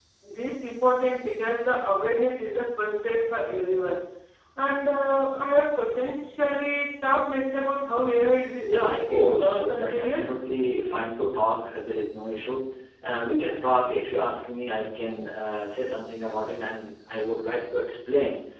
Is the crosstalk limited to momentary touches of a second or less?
No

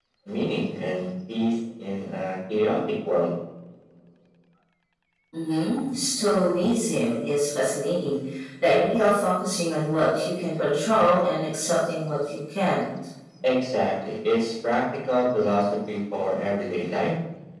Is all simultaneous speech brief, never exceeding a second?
Yes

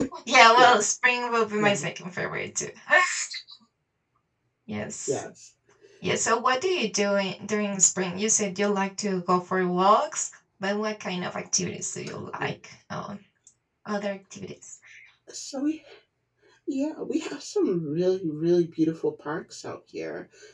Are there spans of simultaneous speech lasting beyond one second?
No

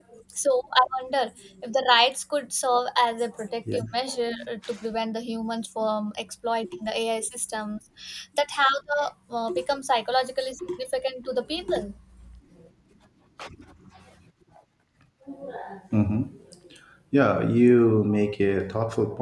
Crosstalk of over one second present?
No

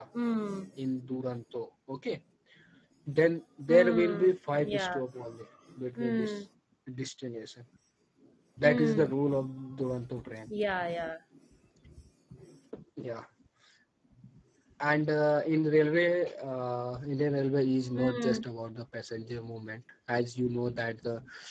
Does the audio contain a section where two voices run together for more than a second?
Yes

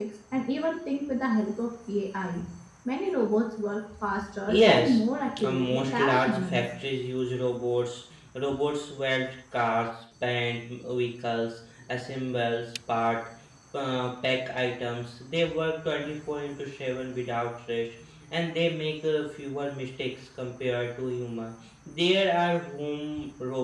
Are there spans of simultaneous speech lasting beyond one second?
Yes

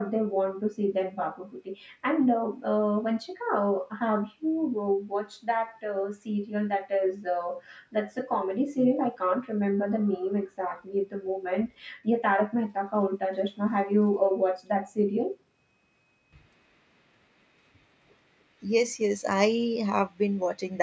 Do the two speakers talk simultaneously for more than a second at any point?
No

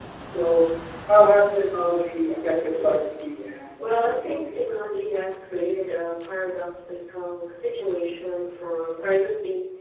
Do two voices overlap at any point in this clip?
Yes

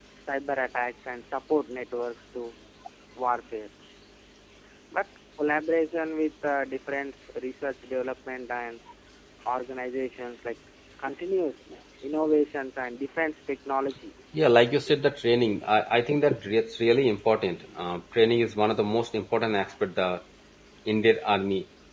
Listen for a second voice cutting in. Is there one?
No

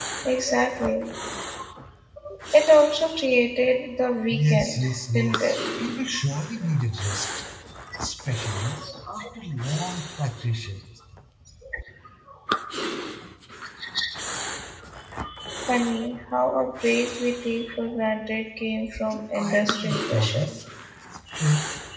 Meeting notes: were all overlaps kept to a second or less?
No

